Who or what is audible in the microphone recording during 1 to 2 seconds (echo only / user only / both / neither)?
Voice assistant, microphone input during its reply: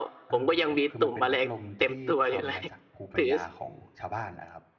both